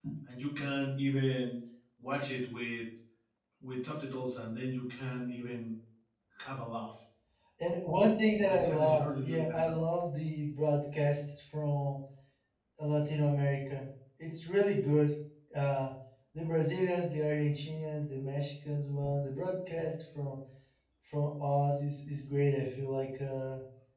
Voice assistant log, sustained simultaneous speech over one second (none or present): present